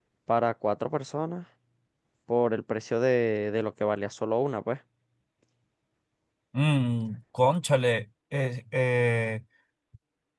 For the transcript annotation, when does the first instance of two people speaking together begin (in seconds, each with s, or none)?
none